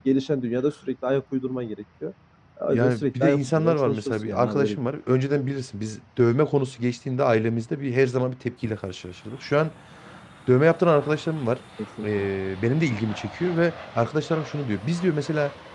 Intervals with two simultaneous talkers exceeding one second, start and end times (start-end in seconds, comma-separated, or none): 2.7-4.8